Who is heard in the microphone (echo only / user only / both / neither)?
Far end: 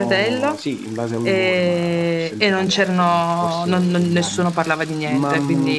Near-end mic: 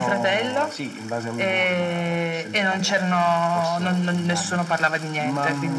echo only